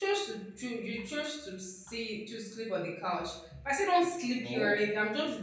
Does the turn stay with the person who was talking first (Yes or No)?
Yes